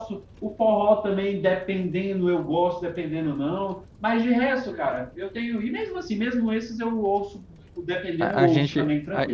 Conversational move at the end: taking over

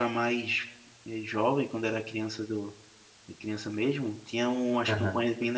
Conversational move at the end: listening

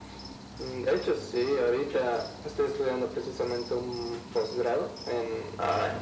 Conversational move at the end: listening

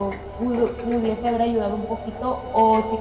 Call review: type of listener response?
listening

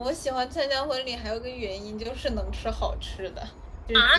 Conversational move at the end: taking over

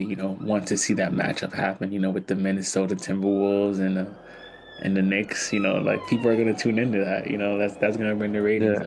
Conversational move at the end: taking over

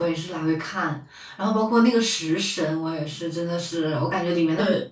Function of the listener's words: listening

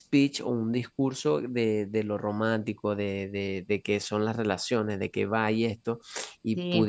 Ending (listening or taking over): listening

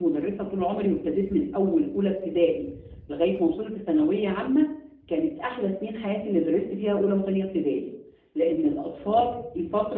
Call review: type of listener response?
listening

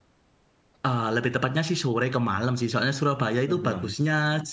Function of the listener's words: listening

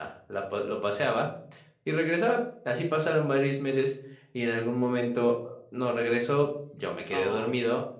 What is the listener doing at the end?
listening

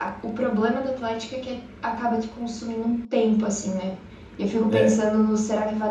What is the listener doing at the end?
listening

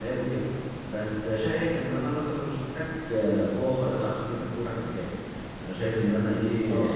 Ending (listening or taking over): listening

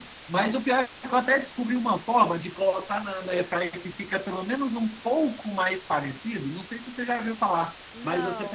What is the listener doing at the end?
listening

